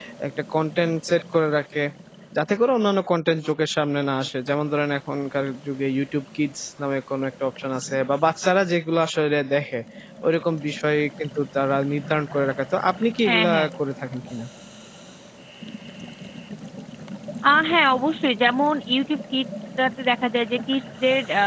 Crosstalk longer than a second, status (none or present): none